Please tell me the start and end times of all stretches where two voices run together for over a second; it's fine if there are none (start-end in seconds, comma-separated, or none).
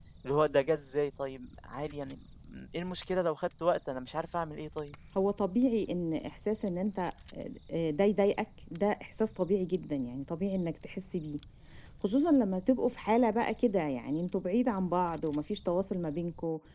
none